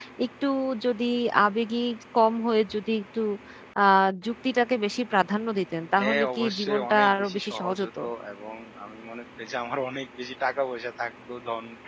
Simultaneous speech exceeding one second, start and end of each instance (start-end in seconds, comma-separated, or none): 6.0-7.9